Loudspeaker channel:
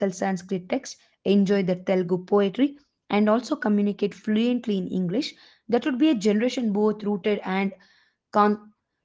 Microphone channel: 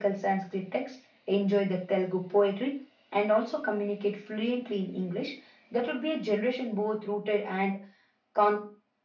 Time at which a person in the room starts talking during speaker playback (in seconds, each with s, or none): none